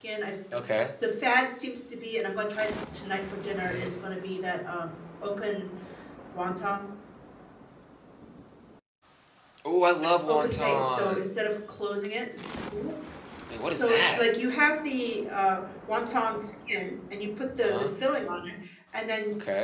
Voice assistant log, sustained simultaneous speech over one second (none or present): present